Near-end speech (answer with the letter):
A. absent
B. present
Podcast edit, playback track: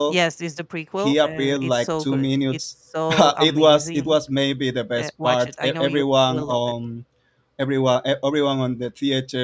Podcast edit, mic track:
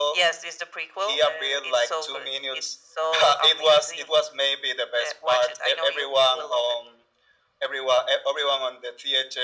A